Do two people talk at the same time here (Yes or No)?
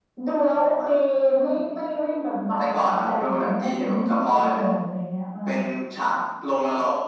Yes